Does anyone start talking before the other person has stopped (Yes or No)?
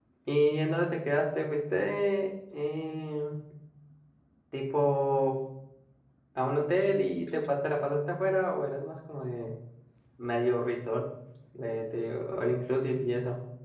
No